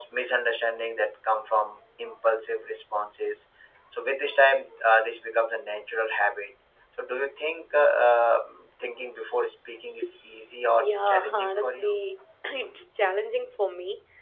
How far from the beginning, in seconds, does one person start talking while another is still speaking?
10.7 s

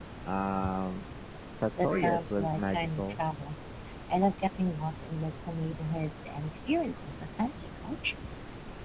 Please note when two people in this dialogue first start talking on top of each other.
1.8 s

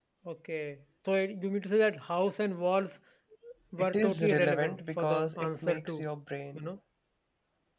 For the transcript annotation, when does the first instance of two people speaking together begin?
3.8 s

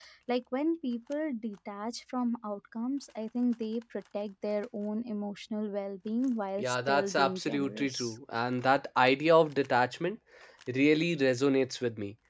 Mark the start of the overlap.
6.6 s

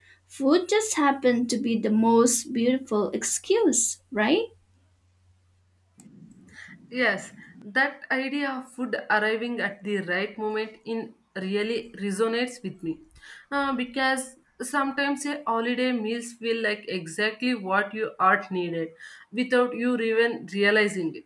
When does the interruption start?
none

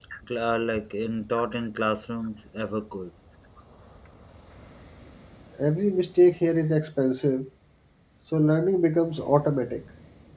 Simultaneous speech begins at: none

